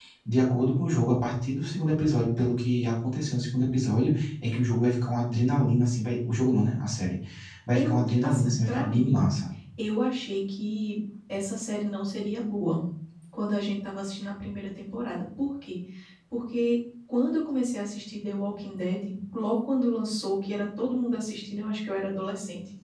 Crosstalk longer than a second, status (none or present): present